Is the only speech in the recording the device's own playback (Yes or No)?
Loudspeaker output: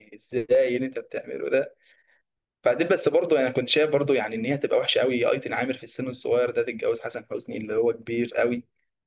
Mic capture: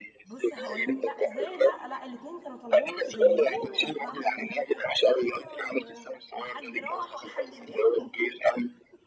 No